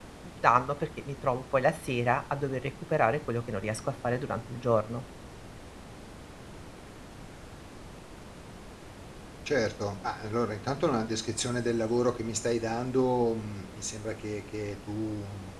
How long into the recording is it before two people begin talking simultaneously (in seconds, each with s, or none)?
none